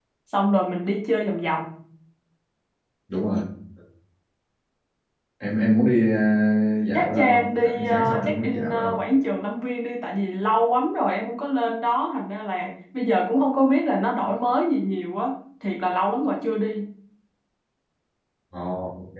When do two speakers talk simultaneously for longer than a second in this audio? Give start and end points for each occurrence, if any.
6.9-9.0

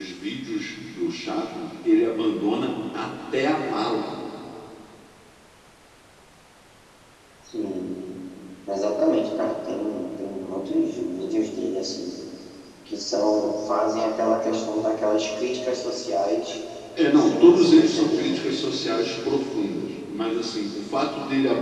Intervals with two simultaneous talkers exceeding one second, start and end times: 17.1-18.4

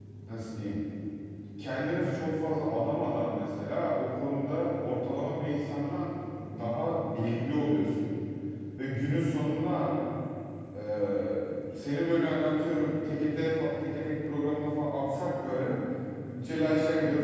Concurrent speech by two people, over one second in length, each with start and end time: none

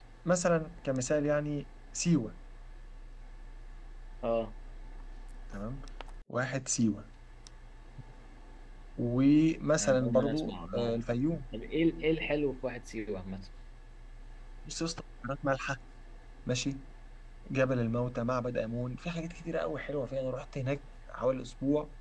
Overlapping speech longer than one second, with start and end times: 9.8-11.0

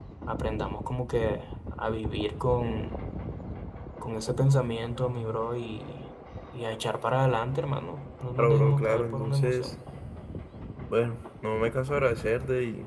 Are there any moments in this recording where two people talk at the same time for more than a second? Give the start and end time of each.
8.4-9.7

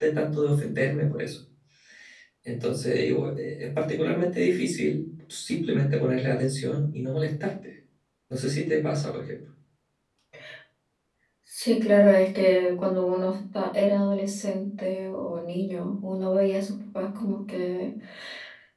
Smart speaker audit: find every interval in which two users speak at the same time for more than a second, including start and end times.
none

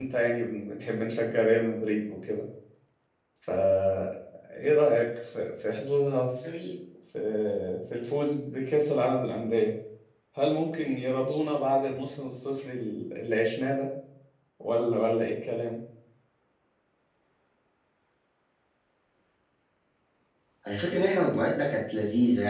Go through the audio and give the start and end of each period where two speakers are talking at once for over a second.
none

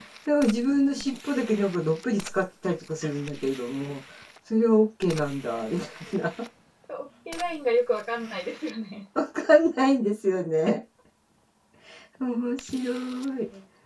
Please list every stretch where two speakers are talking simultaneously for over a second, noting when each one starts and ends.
none

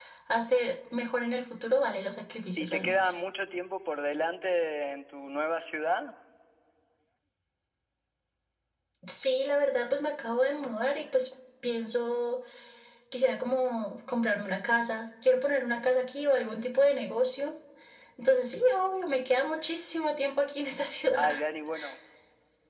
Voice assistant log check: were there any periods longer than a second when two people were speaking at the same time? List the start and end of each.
none

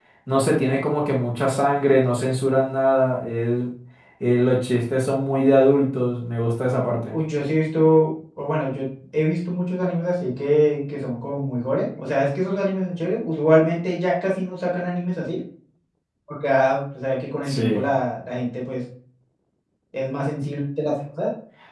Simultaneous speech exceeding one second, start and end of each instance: none

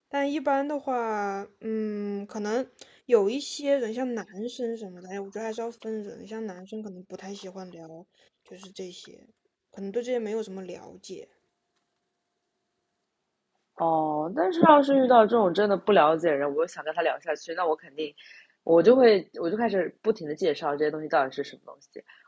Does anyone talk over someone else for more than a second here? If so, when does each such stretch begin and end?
none

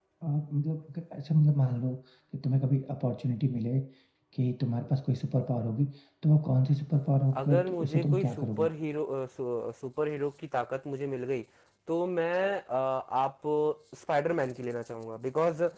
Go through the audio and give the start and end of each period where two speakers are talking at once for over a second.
7.4-8.7

